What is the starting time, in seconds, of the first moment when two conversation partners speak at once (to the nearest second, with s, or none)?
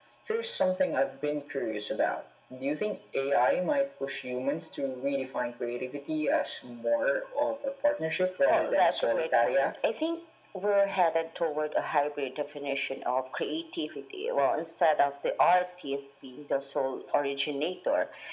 8 s